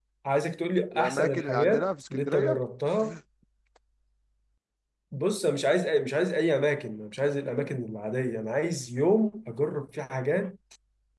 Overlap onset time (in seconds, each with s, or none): 0.9 s